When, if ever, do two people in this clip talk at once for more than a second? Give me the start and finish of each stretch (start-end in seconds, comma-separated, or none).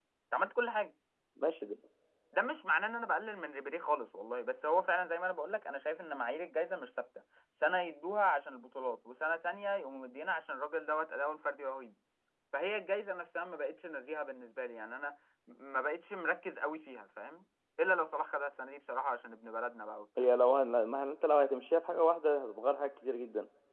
none